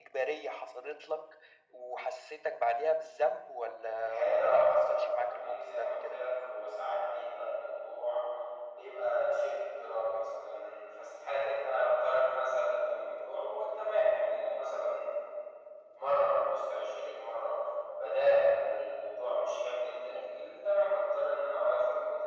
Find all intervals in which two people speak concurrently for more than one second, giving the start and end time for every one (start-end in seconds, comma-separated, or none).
4.0-6.2